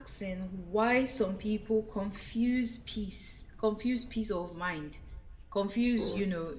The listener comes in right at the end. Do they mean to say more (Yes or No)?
No